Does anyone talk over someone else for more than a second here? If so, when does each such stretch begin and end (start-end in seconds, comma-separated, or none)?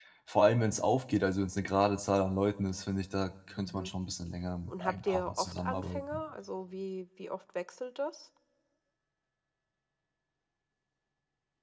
4.7-6.2